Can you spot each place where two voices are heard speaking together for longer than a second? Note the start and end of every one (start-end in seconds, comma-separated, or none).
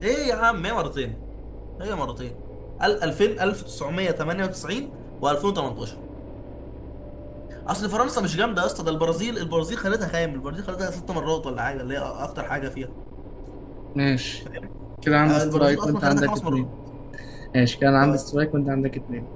15.2-16.6